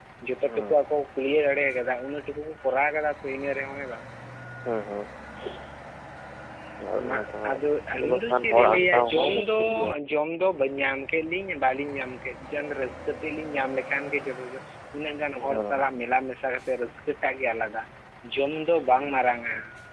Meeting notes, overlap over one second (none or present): present